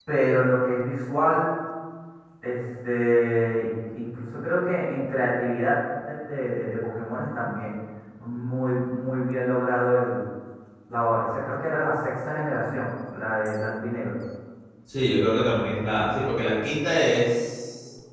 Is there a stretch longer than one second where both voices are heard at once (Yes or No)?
No